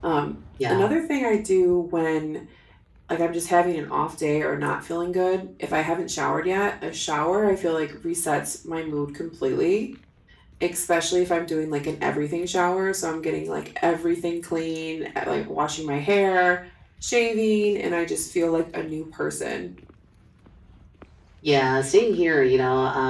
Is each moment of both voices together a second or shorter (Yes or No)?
Yes